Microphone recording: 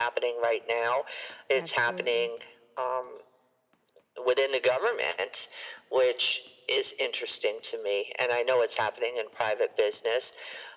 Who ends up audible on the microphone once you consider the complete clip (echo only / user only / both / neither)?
both